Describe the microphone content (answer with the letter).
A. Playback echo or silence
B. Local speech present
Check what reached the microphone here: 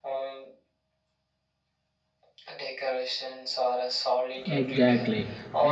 B